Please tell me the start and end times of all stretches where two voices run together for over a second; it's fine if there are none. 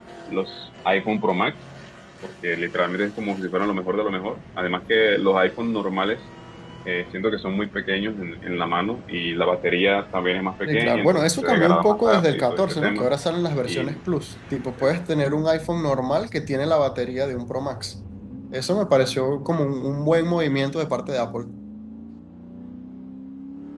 10.7-13.1

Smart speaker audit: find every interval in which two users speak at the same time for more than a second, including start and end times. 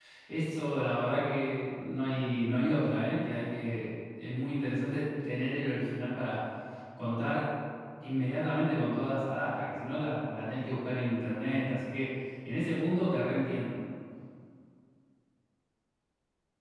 none

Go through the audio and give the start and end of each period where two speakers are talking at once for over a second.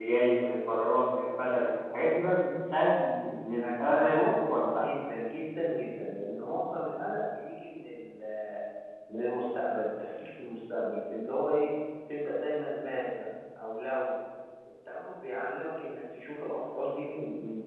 3.6-4.8

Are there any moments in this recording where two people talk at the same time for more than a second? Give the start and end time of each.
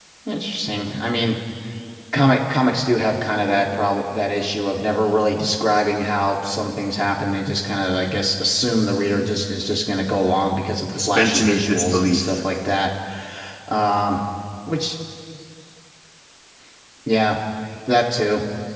11.0-12.4

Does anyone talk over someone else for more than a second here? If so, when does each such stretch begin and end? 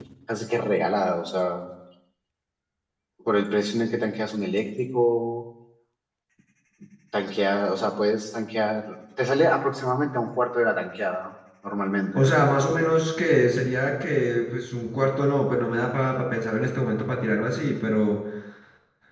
none

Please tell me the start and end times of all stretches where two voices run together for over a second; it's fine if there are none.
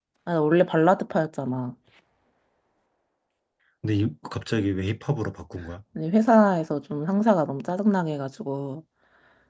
none

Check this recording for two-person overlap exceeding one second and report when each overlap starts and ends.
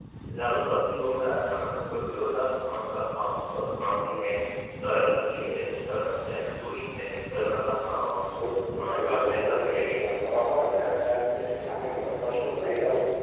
8.8-10.3

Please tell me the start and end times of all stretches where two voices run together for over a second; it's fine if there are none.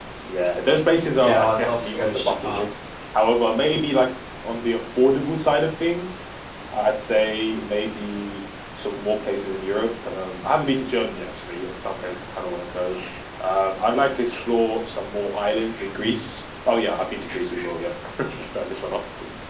1.1-2.6

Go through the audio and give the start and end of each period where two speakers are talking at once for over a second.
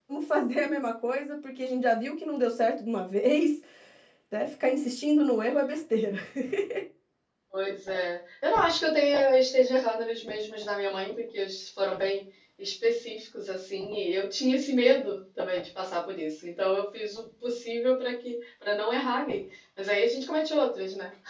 none

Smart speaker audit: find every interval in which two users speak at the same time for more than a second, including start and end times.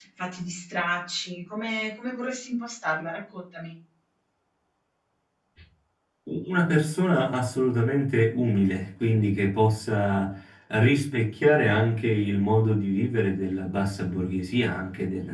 none

